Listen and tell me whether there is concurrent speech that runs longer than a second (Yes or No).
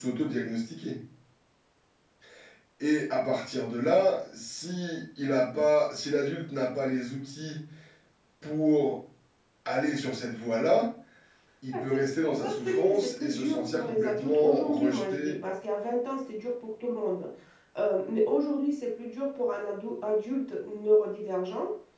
Yes